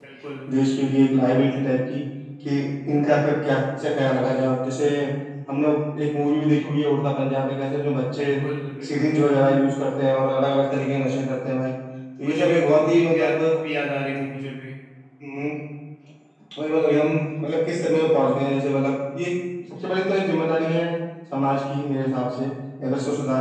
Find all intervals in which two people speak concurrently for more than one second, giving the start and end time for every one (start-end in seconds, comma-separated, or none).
12.2-13.6